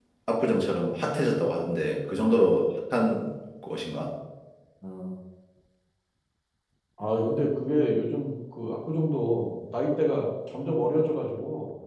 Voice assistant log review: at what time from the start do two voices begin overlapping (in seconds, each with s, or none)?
none